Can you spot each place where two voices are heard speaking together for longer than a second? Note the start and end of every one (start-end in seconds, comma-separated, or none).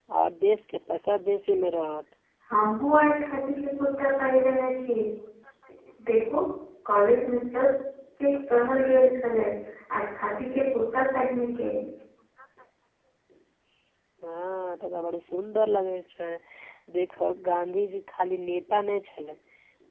none